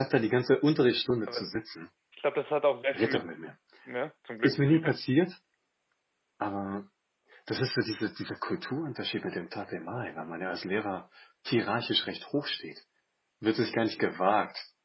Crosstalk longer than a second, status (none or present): none